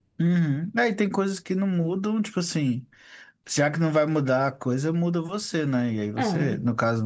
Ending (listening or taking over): listening